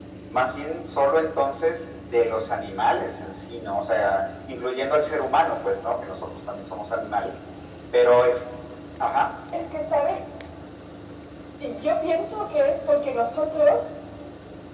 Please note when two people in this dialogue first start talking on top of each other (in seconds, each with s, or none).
none